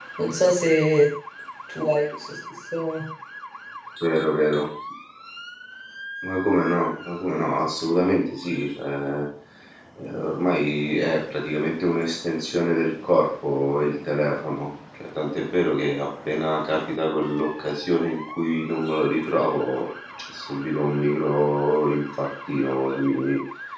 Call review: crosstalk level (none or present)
none